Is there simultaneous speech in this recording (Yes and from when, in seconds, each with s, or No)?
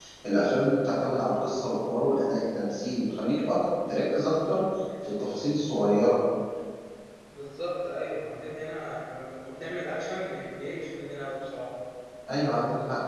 No